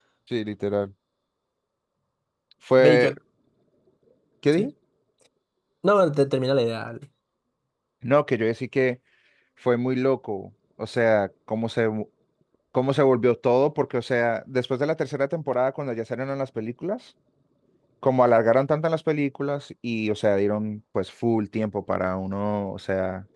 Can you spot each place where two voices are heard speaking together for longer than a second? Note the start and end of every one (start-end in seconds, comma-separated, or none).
none